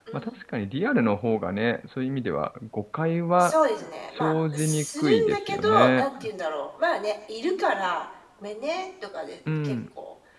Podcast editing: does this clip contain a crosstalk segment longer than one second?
Yes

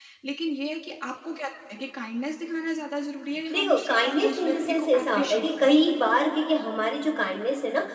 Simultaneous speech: Yes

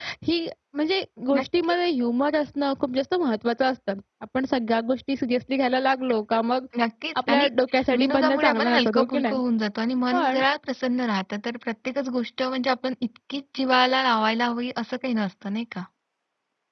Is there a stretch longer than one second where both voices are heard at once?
Yes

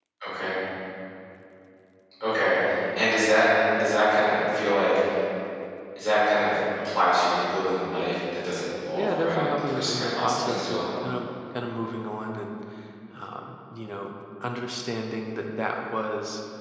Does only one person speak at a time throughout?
No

